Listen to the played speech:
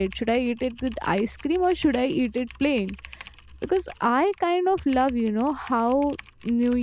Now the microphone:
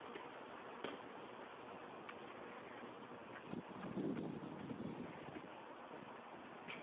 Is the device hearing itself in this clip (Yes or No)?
No